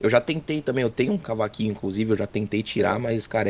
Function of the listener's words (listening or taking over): listening